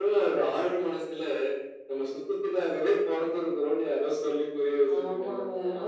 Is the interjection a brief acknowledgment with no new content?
No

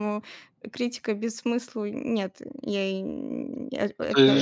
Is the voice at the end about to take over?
Yes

